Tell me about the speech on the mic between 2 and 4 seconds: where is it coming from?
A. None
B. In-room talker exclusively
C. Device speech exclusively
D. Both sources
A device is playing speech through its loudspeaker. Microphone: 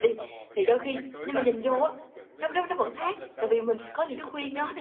D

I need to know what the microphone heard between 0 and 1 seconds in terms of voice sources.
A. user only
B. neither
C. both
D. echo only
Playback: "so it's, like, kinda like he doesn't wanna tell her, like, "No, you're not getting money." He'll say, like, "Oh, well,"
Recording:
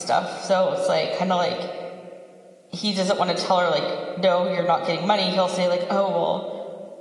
D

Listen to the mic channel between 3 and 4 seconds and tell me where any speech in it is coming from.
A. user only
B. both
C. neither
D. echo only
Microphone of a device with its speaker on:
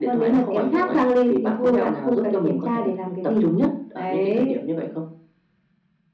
D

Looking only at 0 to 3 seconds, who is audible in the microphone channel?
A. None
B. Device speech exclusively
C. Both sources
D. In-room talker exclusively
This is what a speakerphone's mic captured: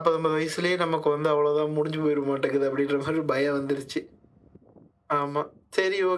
B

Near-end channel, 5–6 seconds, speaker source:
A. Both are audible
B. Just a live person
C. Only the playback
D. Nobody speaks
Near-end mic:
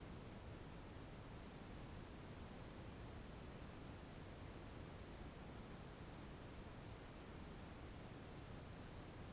D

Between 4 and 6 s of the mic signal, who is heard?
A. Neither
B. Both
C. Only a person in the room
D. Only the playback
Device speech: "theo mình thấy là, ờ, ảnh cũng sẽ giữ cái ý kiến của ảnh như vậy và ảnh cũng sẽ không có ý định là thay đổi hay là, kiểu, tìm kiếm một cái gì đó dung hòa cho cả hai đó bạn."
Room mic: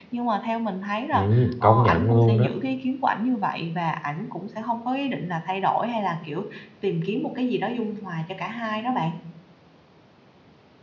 D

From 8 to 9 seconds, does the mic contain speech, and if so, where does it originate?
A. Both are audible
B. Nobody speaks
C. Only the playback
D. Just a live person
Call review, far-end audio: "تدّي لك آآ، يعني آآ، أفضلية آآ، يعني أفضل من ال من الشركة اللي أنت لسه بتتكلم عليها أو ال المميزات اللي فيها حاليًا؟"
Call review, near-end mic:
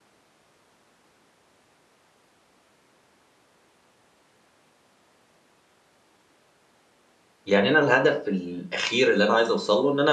D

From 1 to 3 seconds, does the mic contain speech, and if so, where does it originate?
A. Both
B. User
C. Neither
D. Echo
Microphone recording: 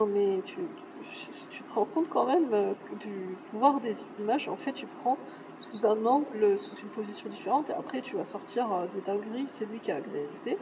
B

